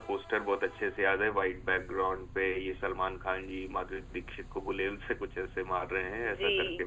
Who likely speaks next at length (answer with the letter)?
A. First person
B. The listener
B